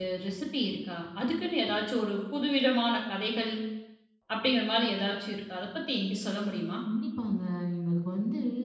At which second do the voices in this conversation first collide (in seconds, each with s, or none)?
none